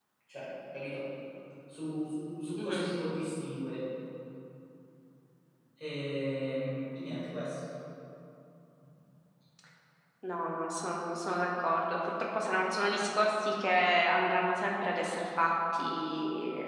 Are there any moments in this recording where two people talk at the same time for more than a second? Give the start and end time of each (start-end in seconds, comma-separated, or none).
none